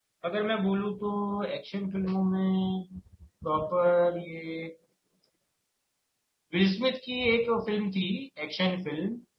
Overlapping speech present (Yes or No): No